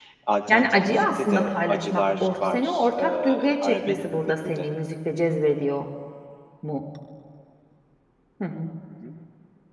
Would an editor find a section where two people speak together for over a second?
Yes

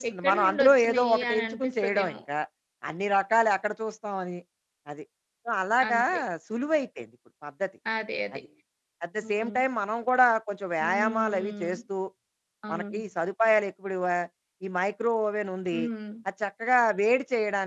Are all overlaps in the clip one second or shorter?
No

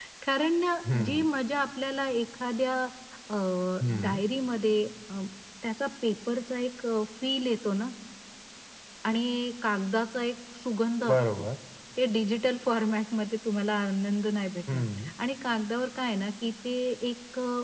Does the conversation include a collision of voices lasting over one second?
No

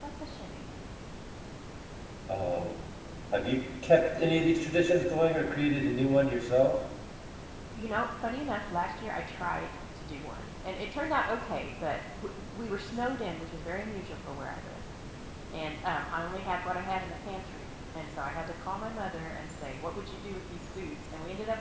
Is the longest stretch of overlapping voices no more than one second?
Yes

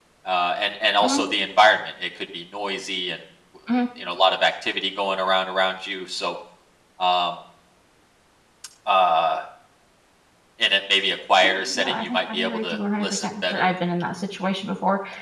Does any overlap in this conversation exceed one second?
Yes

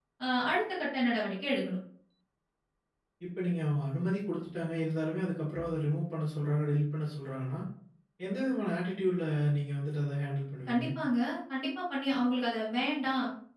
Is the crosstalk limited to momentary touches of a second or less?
Yes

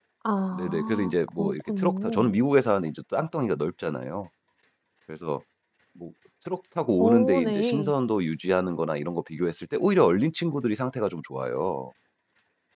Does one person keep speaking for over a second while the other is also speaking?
Yes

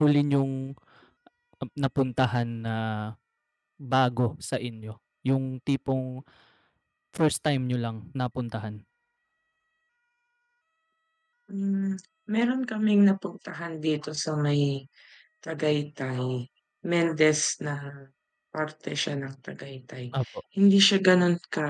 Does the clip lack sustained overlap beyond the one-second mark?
Yes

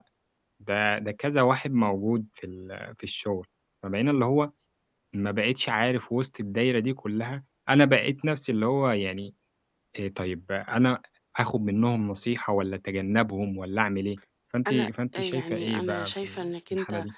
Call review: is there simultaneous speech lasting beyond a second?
Yes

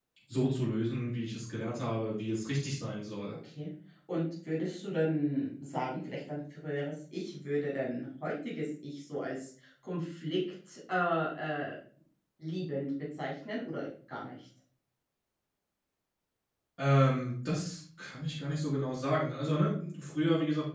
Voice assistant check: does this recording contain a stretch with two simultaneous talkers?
No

